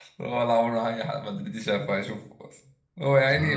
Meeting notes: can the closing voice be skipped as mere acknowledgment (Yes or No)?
Yes